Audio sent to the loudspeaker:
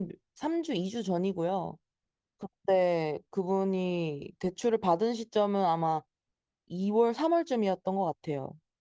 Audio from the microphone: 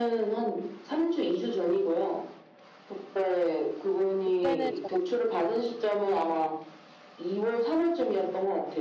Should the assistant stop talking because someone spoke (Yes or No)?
Yes